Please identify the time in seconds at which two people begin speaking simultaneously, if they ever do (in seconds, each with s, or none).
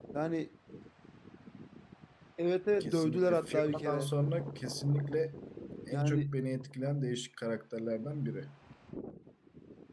2.8 s